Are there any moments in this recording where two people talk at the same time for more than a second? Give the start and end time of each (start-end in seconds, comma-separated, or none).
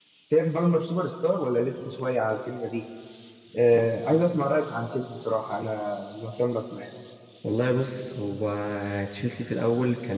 none